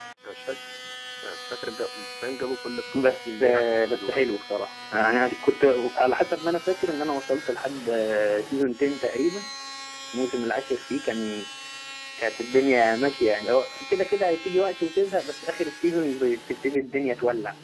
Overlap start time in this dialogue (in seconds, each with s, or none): 2.9 s